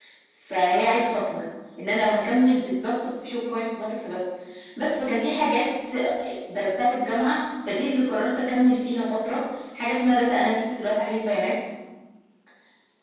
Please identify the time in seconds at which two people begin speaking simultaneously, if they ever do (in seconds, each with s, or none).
none